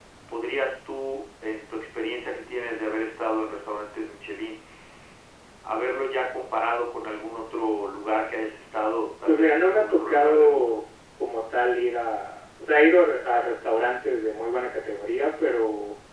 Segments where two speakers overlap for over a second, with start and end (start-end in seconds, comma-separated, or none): 9.2-10.8